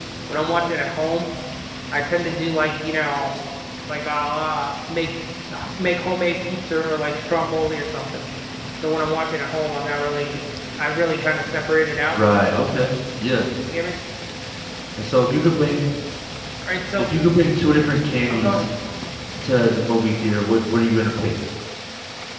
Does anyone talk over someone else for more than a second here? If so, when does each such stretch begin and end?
none

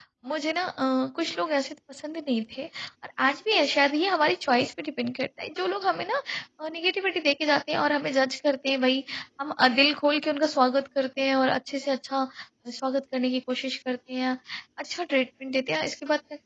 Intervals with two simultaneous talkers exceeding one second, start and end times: none

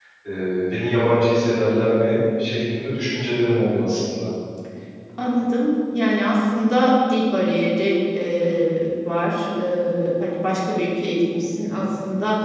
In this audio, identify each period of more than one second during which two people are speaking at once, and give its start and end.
none

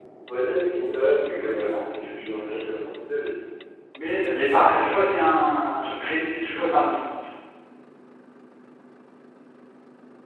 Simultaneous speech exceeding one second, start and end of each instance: 1.3-2.7

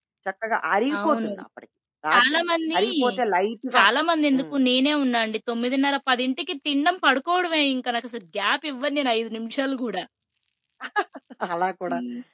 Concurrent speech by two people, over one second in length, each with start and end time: none

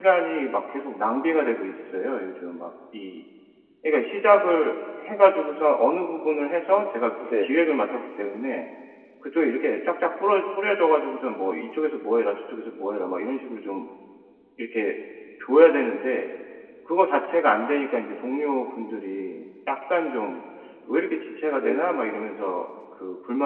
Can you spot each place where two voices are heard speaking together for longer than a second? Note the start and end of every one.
20.9-22.3

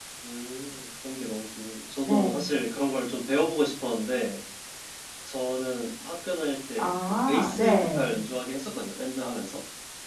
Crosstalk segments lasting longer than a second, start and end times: 6.8-8.1

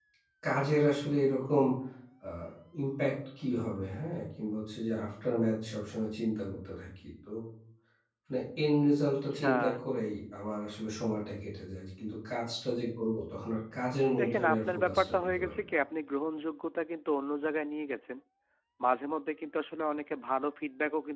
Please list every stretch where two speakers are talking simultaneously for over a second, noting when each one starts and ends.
14.2-15.7

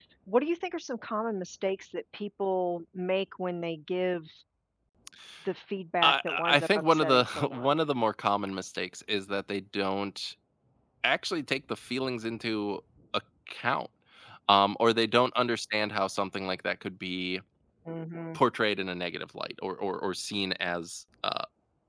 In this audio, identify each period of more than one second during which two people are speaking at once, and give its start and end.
6.0-7.7

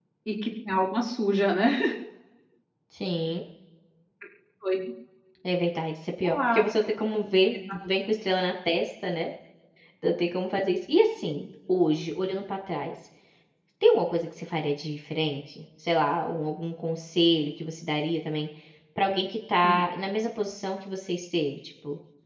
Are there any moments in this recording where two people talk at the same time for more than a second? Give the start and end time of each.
none

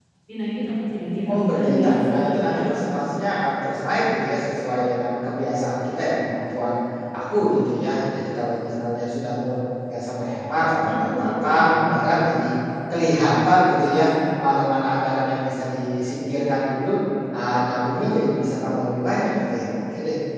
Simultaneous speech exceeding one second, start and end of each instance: 1.3-2.6, 10.8-12.1

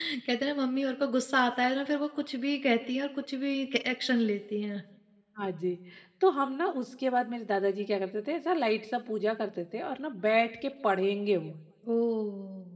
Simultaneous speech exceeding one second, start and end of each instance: none

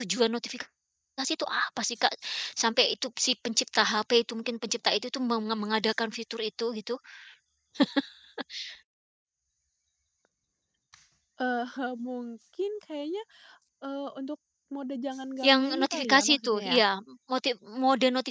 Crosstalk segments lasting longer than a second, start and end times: 15.4-16.8

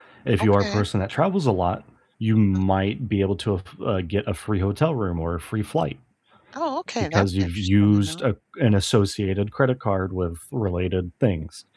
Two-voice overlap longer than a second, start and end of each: 7.0-8.2

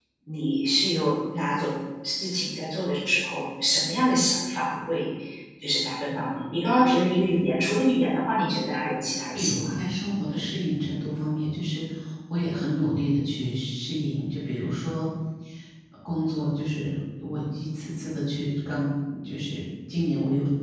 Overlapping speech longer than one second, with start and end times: none

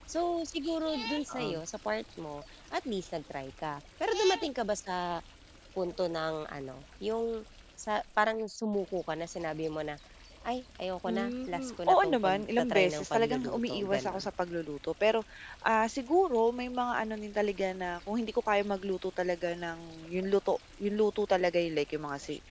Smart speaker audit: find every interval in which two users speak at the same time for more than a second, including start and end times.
11.1-14.3

